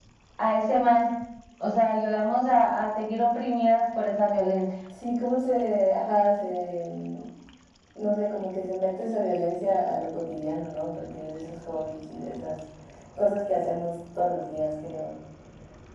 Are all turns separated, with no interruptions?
Yes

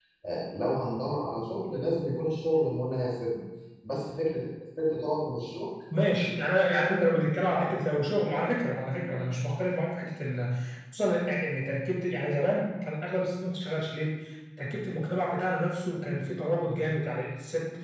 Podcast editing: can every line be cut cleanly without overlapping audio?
Yes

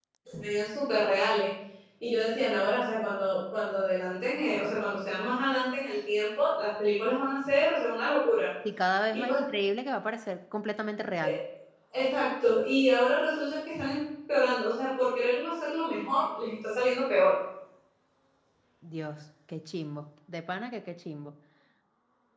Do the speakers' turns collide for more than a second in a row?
No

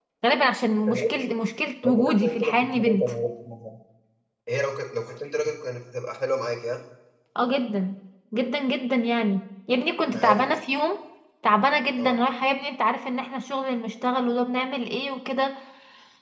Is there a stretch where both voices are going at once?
Yes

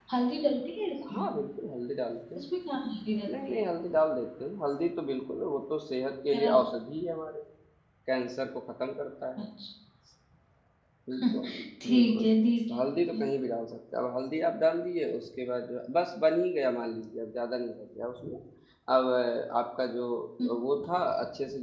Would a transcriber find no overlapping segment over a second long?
Yes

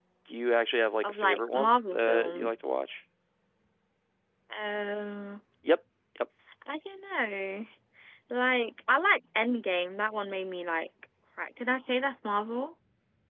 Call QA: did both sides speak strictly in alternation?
No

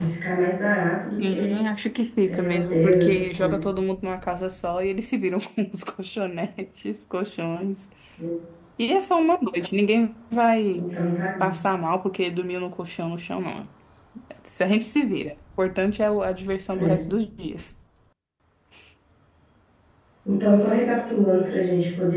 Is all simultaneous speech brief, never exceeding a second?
No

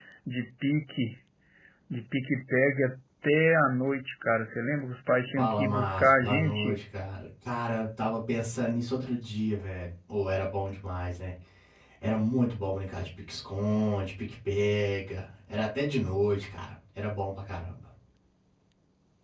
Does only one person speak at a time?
No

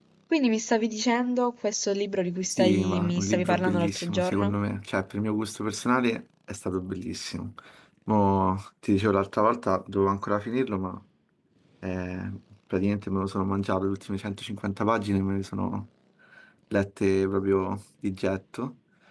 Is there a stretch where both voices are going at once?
Yes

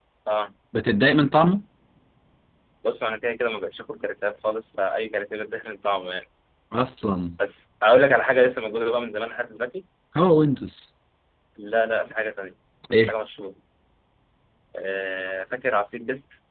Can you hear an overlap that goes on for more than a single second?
No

